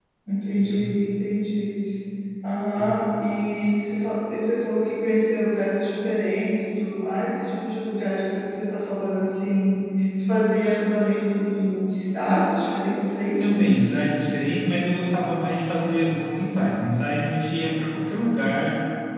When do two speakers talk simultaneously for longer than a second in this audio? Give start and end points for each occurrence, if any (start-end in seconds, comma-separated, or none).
none